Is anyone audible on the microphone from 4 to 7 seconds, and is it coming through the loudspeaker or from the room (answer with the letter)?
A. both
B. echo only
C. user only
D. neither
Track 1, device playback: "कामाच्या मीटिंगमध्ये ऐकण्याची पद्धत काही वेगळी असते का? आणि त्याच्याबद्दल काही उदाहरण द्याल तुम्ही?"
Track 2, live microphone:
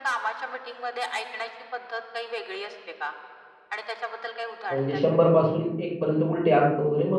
A